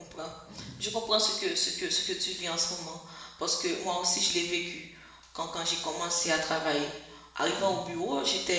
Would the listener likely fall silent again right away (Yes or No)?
Yes